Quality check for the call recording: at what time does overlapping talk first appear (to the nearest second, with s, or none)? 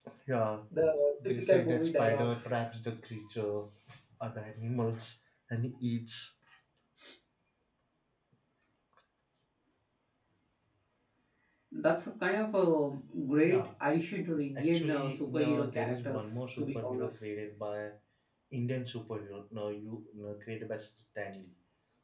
1 s